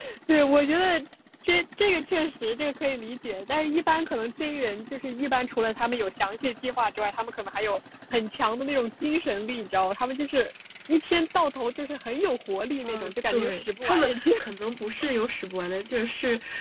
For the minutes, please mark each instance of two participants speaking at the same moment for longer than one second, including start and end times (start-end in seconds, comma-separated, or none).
12.8-14.3